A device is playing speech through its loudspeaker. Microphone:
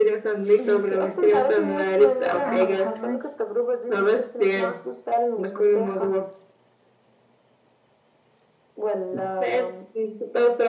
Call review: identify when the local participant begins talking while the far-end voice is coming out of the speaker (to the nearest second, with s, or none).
2 s